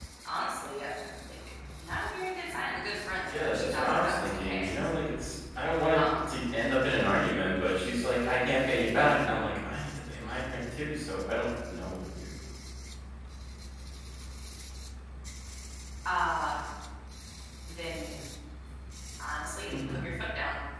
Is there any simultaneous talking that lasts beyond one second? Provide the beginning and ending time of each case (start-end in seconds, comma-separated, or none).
3.3-4.7